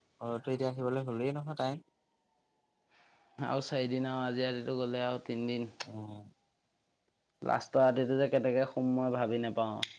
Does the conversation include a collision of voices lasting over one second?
No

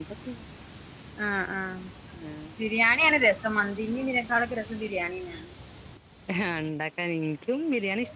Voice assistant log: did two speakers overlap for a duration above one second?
No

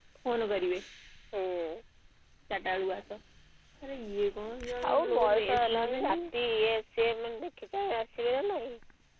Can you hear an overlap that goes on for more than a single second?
Yes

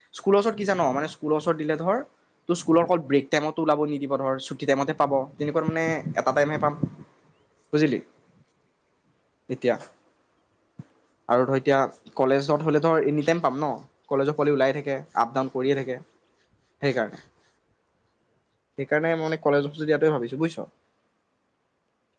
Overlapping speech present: No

